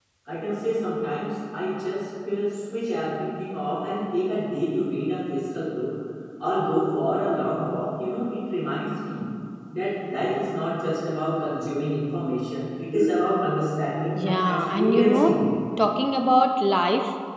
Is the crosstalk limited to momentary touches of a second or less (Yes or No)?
No